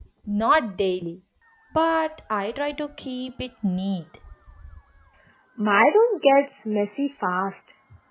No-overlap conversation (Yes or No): Yes